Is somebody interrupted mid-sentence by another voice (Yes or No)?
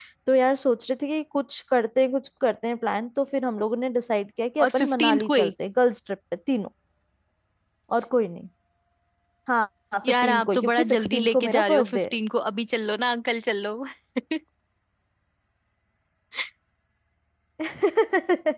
Yes